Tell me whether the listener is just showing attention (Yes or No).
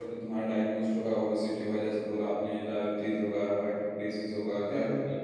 Yes